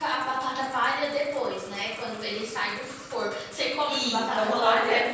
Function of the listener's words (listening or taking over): taking over